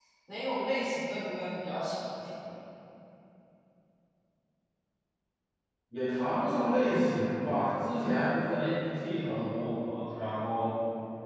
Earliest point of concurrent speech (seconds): none

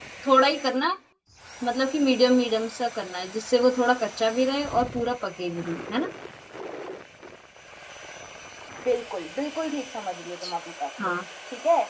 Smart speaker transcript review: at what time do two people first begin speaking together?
none

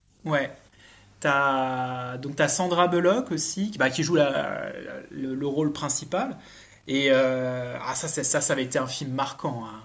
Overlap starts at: none

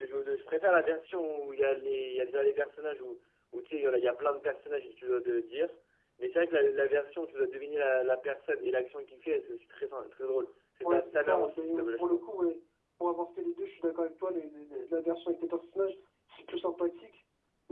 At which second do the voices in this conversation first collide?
10.8 s

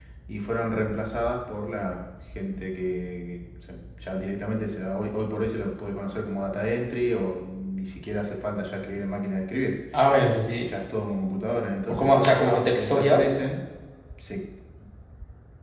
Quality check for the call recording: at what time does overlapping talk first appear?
11.9 s

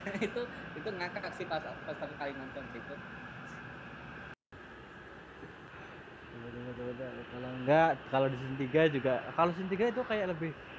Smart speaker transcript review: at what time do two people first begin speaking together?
none

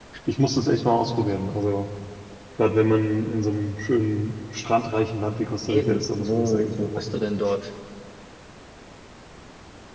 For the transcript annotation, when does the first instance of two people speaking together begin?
5.7 s

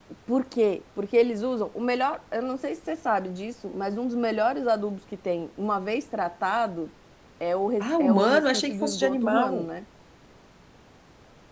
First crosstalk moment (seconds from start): 7.8 s

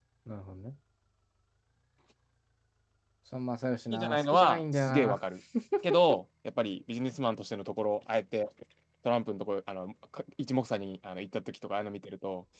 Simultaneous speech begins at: 3.9 s

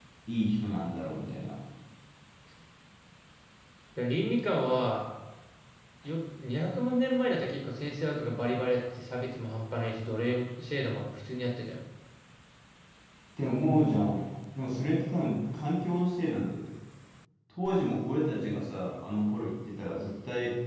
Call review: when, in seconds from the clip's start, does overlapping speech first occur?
none

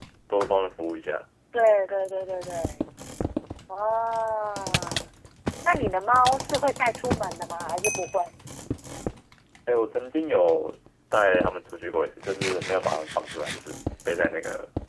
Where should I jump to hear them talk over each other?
none

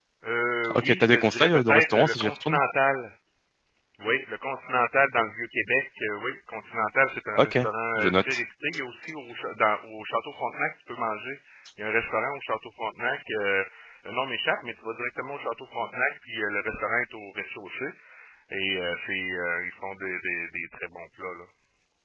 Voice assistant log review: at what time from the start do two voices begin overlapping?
0.8 s

